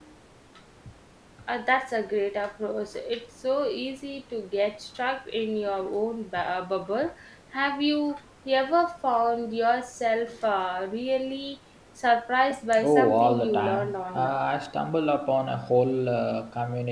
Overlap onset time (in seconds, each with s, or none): 12.7 s